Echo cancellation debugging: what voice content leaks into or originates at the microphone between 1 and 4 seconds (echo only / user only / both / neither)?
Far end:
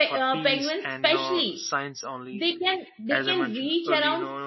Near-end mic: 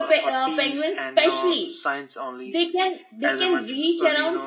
echo only